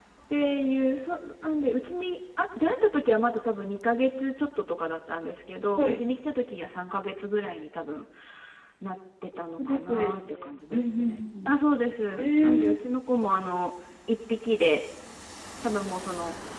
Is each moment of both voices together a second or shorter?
No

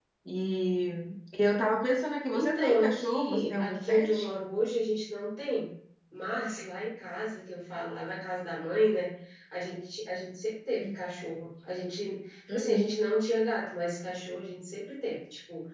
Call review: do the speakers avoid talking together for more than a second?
No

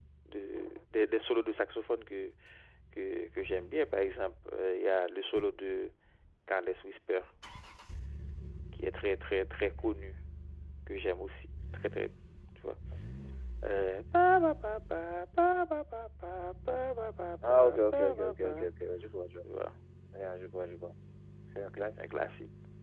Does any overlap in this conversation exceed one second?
Yes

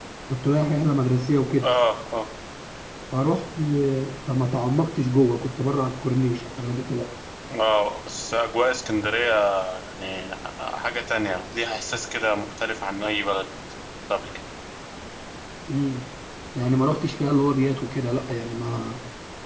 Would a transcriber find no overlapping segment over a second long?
Yes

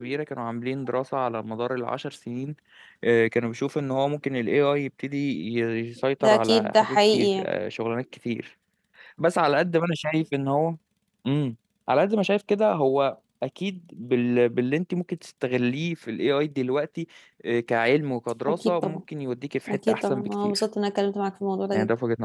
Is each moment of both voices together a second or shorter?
No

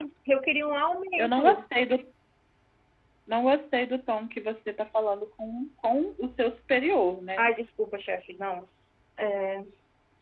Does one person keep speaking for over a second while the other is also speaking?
No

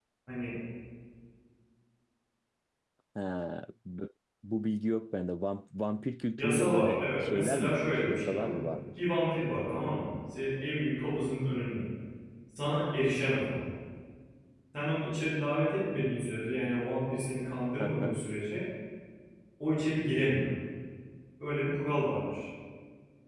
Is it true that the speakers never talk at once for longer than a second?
No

